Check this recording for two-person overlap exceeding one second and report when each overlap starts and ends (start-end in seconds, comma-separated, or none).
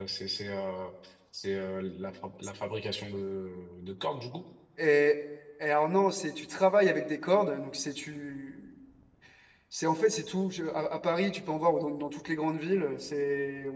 none